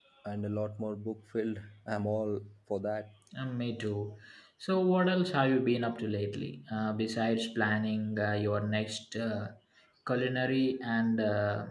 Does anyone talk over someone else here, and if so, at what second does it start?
none

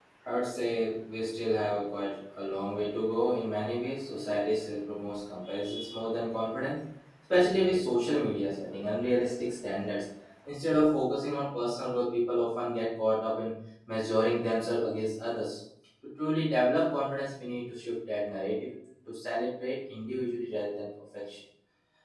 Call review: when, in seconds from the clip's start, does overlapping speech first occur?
none

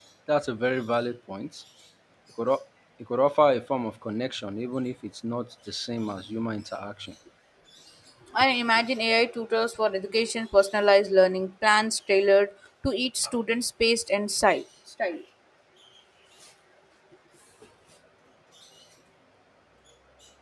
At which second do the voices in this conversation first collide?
none

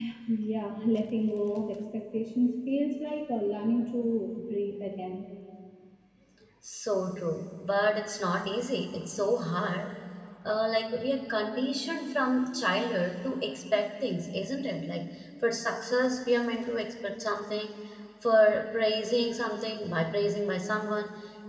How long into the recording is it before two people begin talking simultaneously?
none

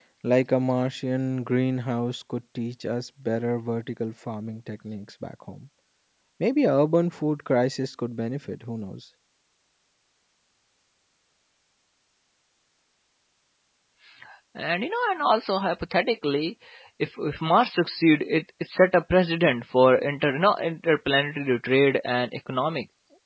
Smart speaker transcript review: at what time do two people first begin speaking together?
none

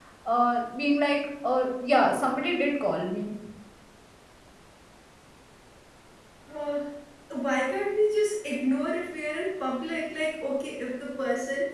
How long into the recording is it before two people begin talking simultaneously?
none

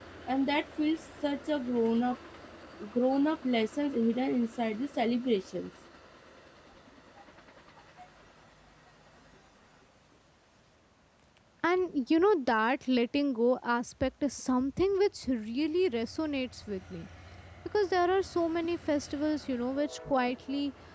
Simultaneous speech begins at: none

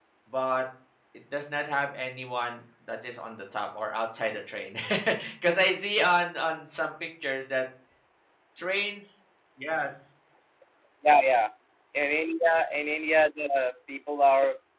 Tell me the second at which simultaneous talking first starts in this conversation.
none

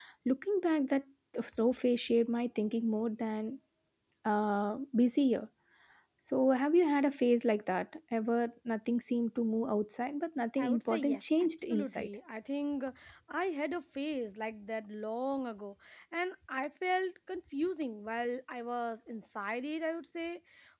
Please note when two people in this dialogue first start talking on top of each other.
10.6 s

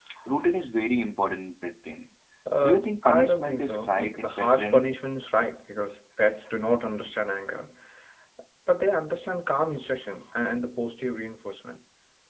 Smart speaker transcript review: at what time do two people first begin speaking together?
2.6 s

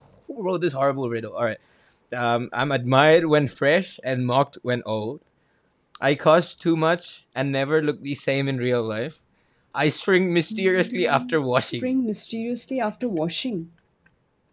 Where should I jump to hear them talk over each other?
10.5 s

